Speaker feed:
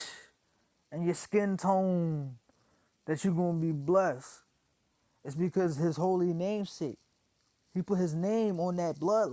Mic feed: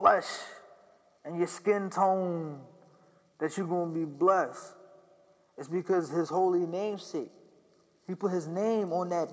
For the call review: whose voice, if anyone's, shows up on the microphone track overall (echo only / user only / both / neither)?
echo only